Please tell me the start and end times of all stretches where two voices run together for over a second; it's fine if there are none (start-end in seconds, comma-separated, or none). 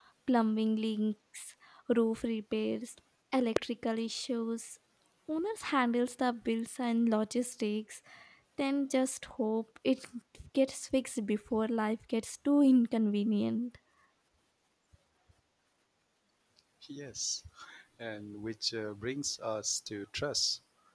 none